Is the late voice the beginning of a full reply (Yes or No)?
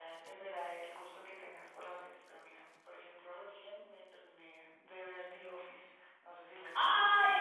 Yes